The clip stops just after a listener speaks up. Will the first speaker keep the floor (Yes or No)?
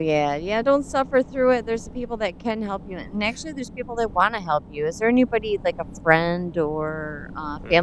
No